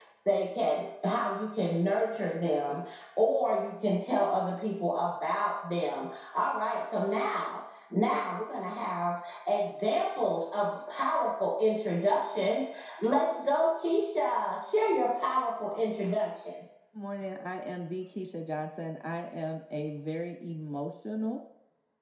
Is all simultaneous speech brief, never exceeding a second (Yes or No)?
Yes